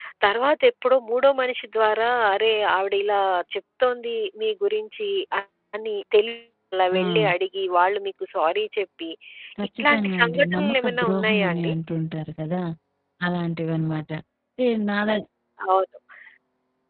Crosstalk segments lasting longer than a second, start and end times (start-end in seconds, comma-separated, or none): 9.8-11.7